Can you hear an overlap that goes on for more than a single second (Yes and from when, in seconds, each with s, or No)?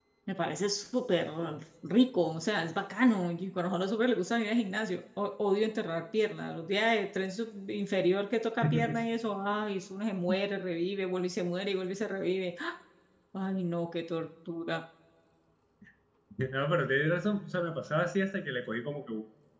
No